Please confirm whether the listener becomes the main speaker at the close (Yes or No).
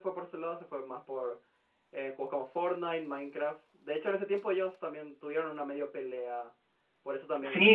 Yes